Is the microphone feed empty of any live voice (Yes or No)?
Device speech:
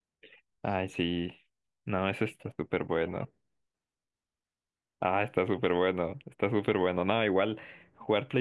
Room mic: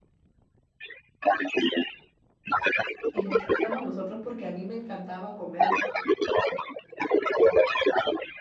No